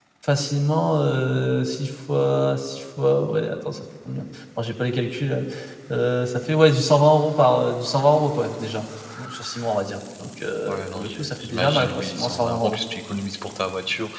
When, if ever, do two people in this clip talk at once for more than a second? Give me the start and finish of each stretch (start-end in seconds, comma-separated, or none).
10.7-12.8